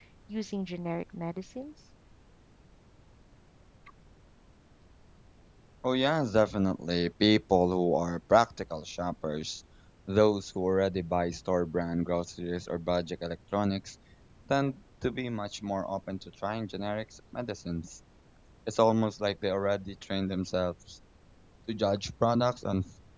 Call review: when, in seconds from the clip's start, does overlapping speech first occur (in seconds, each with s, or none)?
none